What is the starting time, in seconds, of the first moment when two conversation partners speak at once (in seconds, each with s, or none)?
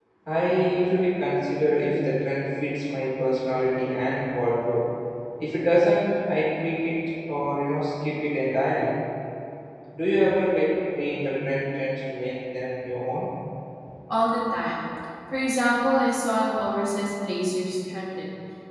none